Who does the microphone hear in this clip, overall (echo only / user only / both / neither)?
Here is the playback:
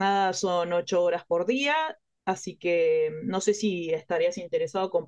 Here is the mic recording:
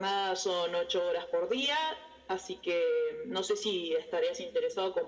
echo only